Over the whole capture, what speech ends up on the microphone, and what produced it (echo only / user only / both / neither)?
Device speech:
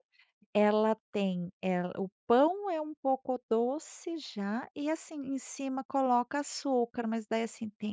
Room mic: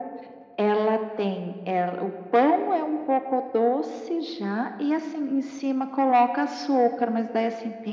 echo only